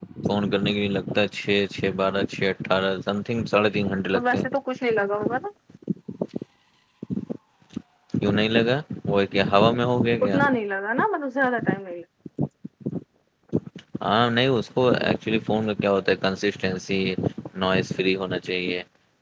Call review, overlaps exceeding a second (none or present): none